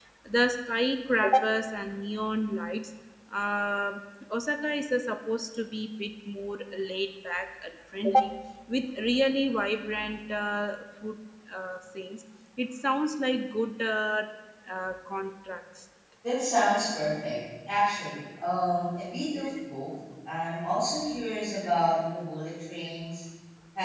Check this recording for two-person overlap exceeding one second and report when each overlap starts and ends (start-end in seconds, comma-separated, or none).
none